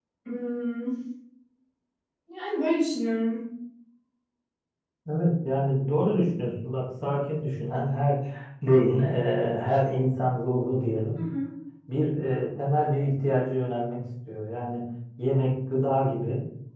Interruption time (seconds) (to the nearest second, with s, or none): none